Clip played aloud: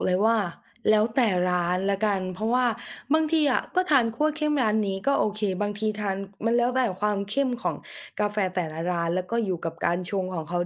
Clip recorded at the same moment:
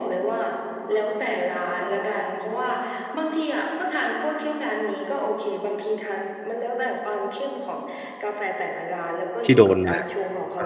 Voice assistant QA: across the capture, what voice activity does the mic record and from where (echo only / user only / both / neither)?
both